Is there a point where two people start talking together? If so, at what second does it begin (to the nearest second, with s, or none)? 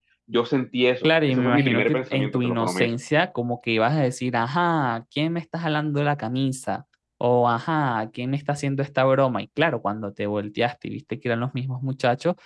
1 s